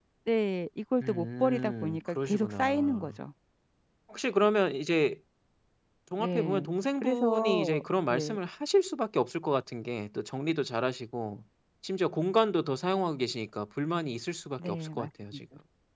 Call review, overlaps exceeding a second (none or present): present